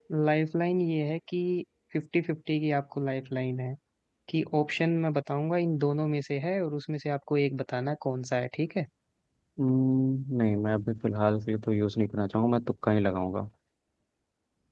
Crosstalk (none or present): none